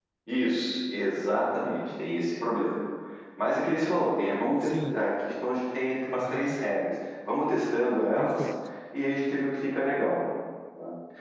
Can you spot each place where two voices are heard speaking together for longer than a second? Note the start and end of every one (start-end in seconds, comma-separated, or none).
none